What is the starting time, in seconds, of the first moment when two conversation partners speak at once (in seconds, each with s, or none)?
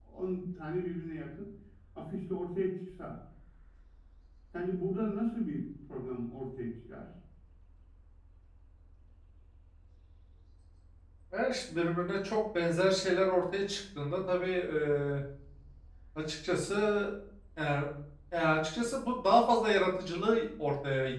none